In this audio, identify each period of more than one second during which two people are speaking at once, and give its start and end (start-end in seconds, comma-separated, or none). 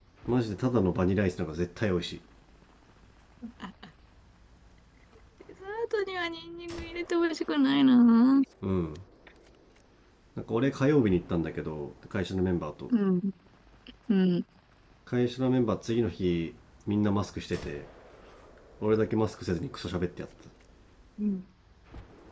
none